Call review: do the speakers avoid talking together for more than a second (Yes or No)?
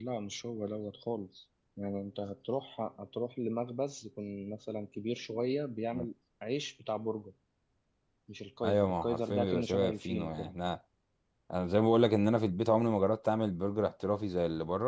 No